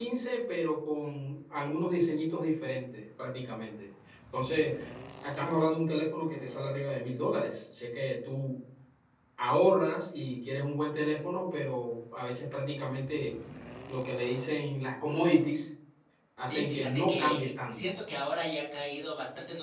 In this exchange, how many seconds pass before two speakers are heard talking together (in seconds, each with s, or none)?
16.4 s